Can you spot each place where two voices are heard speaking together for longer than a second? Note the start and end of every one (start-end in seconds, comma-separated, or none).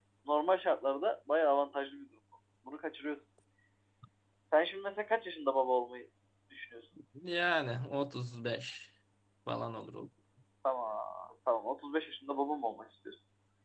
none